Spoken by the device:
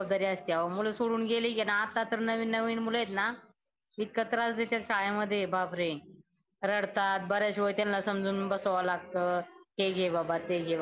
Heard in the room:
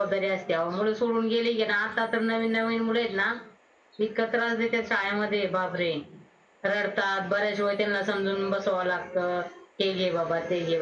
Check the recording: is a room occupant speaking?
No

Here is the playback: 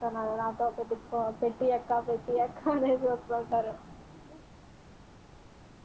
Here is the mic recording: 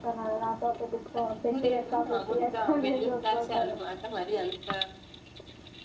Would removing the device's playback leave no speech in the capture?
No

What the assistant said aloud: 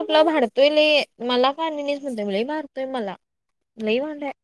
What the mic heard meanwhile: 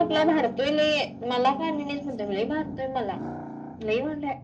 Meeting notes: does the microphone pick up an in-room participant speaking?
No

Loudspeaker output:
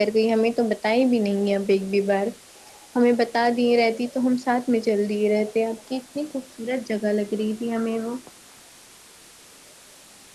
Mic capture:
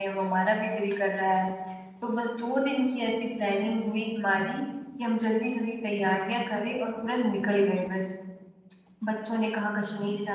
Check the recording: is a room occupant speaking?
Yes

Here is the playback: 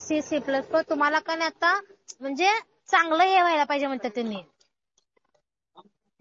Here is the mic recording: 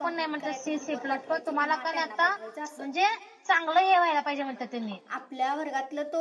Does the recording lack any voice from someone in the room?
No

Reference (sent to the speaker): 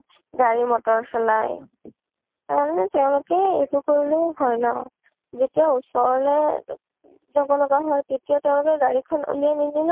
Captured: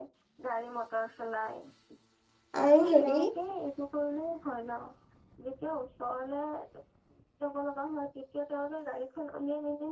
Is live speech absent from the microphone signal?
No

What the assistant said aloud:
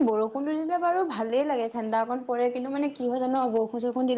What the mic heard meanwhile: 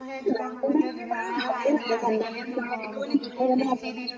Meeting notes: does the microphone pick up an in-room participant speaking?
Yes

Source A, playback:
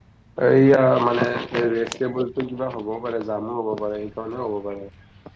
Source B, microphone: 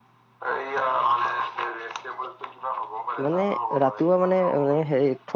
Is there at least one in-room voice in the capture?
Yes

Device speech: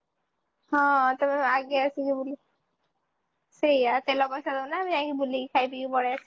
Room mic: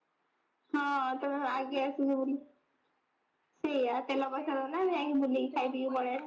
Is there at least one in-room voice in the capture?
Yes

